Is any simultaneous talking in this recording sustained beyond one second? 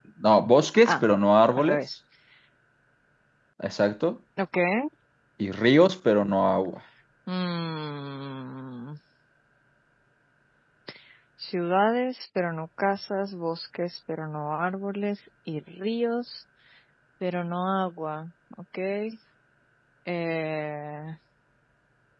No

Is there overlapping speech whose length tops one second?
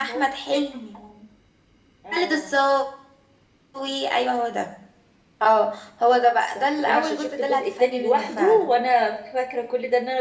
Yes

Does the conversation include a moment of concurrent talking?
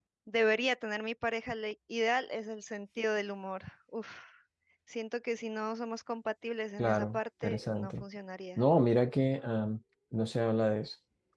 Yes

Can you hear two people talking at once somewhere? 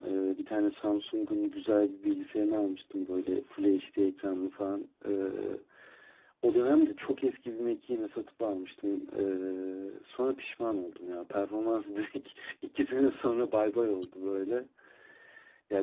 No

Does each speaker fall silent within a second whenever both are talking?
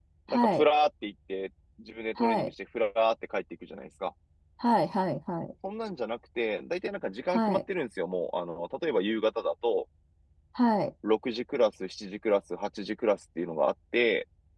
Yes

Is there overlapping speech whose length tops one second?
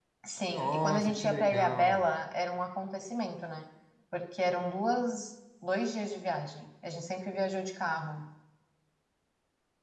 Yes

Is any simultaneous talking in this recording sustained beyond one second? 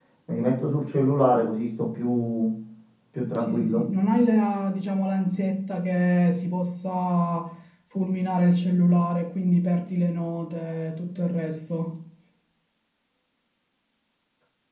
No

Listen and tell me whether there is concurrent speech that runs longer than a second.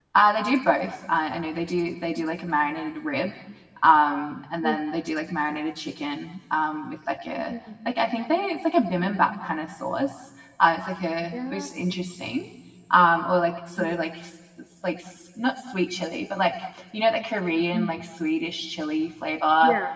No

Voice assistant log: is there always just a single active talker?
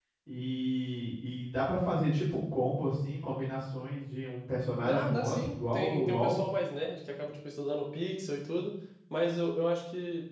No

